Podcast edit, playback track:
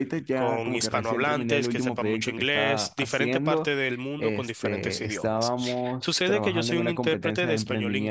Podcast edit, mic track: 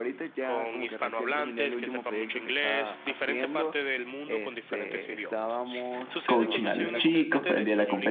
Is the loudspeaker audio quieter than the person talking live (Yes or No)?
Yes